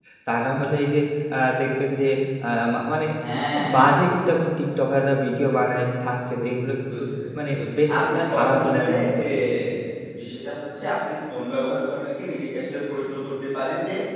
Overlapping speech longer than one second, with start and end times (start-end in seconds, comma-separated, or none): 8.1-9.3